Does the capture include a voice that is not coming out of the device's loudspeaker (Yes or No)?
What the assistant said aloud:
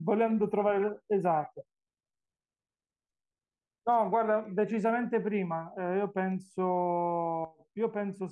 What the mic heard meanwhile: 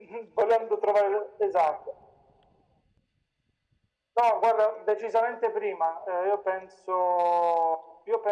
No